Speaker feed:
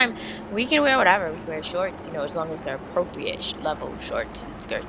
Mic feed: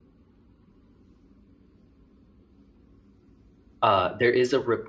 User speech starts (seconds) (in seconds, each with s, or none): 3.8 s